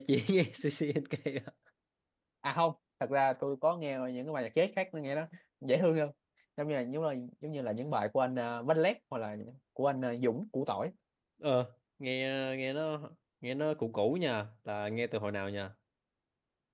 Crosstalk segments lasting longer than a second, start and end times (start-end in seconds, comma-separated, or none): none